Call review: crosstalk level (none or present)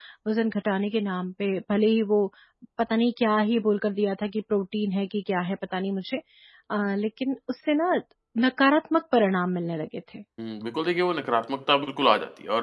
none